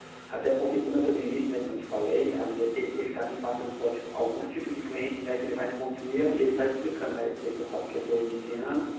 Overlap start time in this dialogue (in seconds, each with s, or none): none